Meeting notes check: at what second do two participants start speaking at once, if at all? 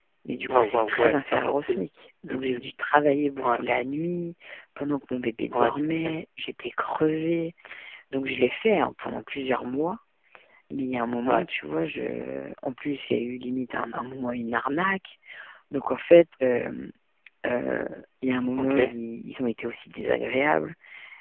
1 s

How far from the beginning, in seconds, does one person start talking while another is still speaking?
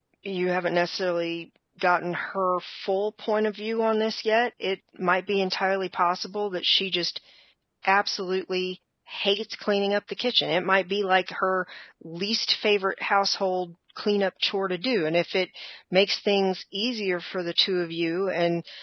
none

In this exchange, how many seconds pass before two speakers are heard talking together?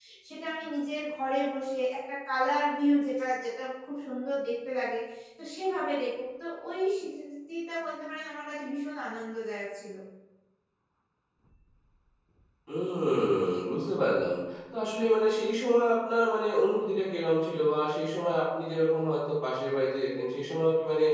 none

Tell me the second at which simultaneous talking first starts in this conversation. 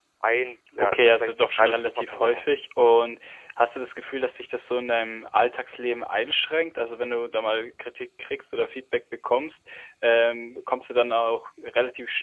1 s

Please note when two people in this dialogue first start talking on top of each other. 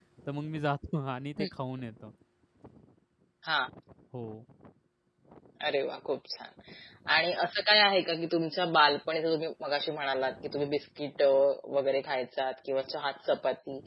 none

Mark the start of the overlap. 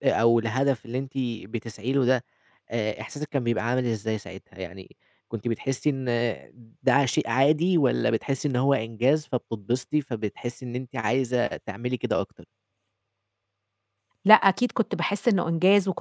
none

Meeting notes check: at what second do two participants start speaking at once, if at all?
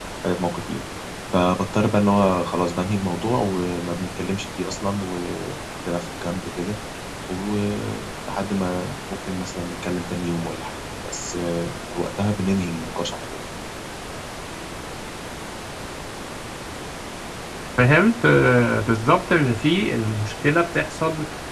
none

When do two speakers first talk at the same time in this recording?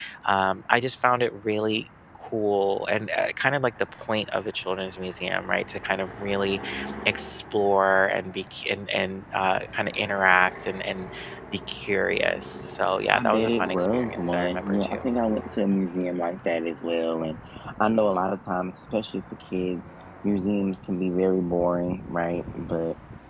13 s

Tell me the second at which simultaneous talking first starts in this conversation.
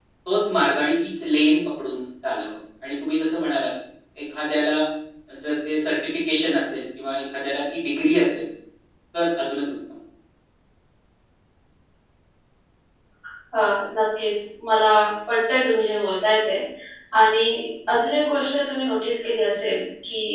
none

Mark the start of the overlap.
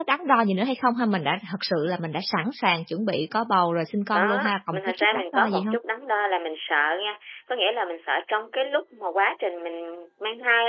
4 s

